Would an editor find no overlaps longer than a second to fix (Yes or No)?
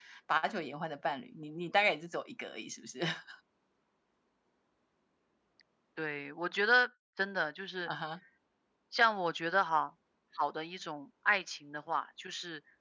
Yes